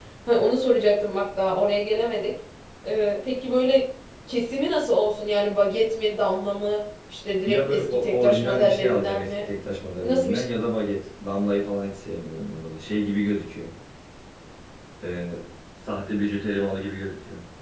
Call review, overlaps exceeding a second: present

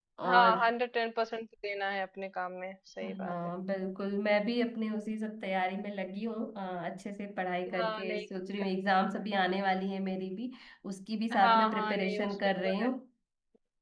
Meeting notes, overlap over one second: present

